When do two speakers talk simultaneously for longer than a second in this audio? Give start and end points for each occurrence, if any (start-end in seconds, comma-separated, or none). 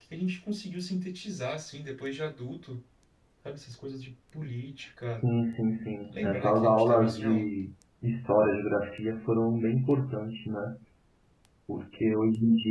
6.1-7.4